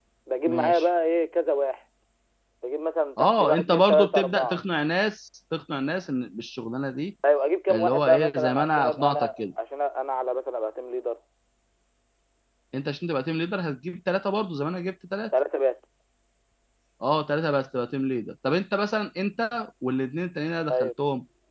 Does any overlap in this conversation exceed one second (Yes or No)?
Yes